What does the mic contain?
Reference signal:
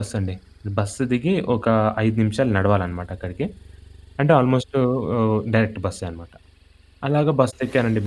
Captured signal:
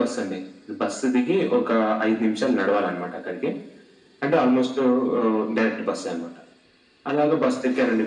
echo only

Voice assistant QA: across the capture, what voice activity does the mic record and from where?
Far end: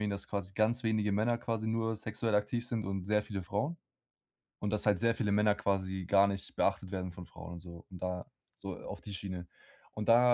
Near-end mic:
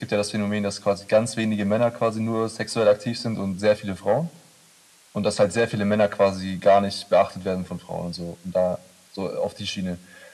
echo only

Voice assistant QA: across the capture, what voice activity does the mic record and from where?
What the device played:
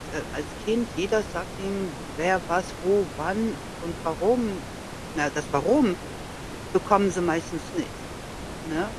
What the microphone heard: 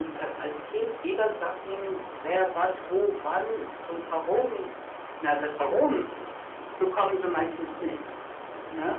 echo only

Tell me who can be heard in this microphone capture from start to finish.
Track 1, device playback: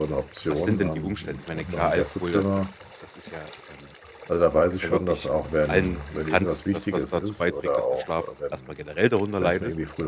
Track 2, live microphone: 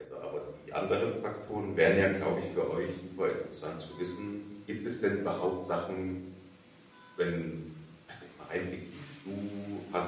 user only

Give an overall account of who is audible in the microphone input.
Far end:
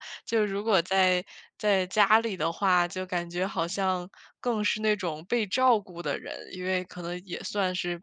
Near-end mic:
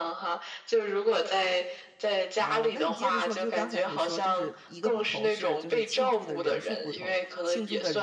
both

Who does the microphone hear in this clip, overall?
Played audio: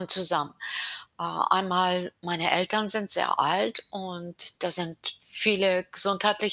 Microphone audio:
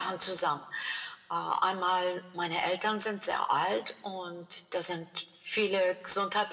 echo only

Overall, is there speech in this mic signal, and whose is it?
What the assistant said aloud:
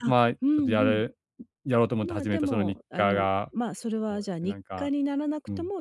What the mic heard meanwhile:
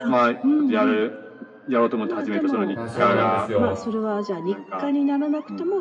both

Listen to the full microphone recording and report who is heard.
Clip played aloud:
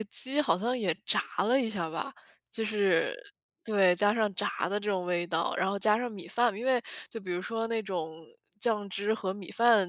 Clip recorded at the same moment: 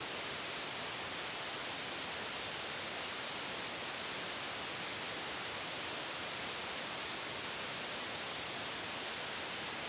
neither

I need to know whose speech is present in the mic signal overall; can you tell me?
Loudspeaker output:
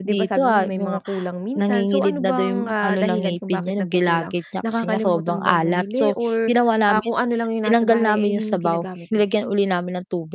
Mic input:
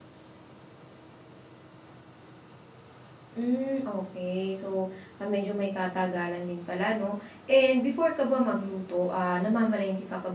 user only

